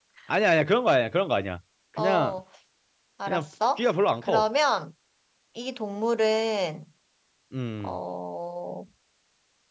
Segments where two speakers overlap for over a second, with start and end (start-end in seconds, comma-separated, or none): none